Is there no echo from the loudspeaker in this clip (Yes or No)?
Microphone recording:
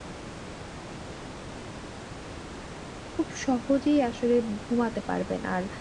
Yes